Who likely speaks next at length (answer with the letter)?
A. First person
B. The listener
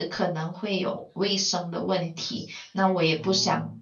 A